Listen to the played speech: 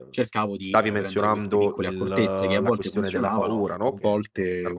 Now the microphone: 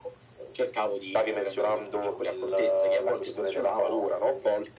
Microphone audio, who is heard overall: echo only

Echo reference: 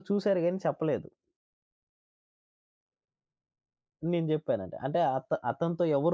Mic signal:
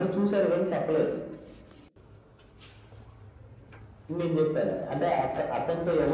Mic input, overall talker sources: echo only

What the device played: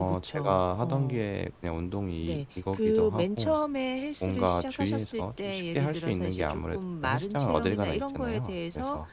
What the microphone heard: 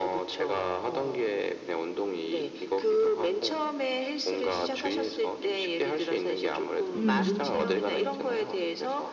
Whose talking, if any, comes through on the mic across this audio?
both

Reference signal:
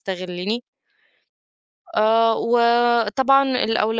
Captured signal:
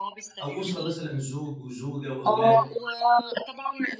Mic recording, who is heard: both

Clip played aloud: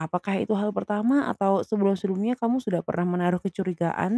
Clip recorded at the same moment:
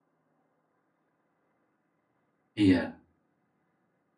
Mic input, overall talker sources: user only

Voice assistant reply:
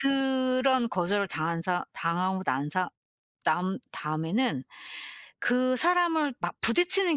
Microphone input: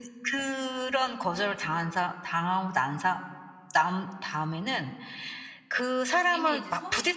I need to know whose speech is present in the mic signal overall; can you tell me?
both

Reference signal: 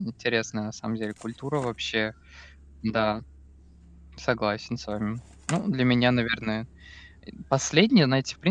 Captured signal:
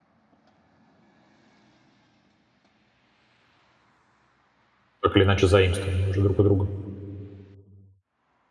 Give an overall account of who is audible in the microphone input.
user only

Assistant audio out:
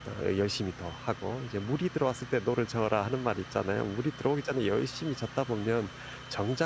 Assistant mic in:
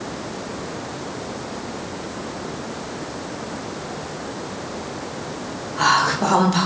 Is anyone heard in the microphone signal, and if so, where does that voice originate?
user only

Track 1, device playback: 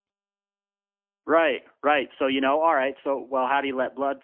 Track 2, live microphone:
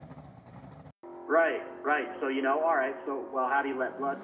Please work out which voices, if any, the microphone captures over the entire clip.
echo only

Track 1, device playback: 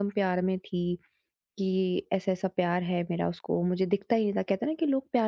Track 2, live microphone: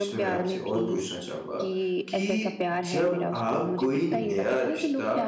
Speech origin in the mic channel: both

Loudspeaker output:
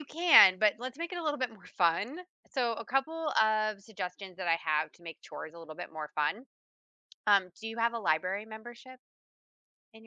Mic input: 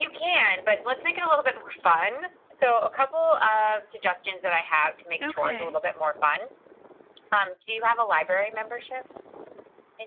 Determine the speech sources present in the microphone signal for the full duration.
both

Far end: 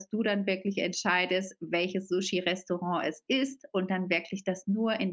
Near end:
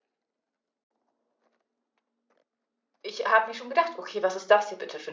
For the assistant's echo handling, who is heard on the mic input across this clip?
user only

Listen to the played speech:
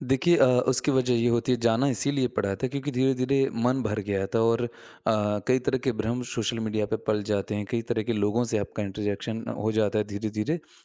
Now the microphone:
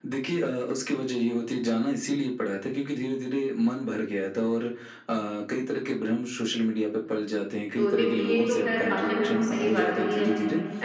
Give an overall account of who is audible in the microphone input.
both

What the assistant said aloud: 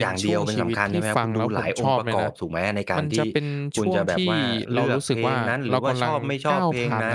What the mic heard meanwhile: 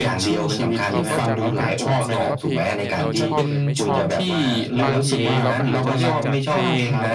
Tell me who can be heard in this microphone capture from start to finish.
both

